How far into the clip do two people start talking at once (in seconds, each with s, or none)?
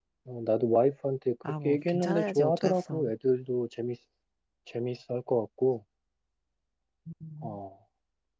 1.4 s